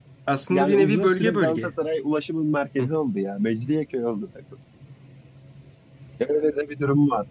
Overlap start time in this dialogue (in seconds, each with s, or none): 0.5 s